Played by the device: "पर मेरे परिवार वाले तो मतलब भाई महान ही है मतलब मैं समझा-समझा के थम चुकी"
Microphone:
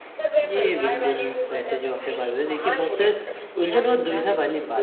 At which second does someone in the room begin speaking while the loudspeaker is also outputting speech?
0.4 s

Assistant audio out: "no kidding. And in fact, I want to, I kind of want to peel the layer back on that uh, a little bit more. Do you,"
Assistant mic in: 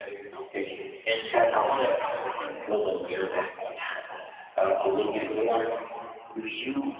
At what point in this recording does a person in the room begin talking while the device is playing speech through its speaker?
none

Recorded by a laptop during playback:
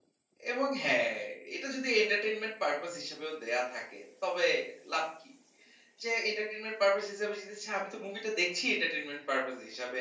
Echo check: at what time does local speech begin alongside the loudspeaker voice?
0.5 s

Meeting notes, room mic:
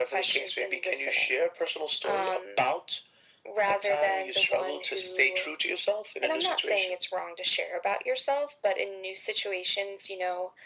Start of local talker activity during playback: none

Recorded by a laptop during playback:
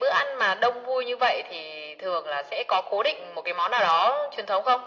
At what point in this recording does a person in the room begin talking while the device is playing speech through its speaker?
none

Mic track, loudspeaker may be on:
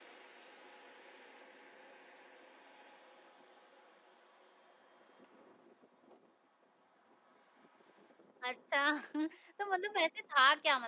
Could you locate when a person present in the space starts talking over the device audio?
8.5 s

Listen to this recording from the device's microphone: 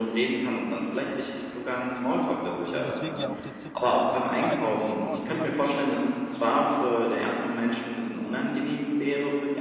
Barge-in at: 2.7 s

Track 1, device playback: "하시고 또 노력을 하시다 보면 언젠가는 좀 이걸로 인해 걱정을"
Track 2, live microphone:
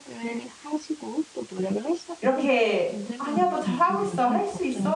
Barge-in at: 2.2 s

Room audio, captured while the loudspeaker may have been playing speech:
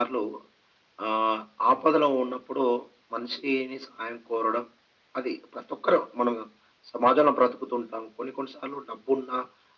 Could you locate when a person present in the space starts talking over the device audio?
none

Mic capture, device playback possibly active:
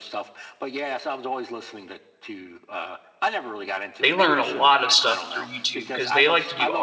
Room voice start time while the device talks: 4.0 s

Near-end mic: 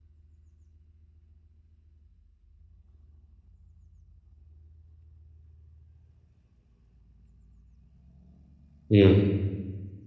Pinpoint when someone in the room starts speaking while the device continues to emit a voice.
8.9 s

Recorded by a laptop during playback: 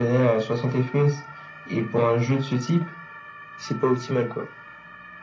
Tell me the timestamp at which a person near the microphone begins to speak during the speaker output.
none

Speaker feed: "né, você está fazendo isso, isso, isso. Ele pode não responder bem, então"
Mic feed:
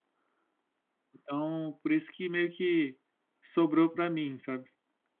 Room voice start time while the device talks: 1.2 s

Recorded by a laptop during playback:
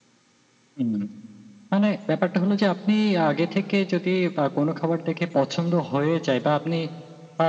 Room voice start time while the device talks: none

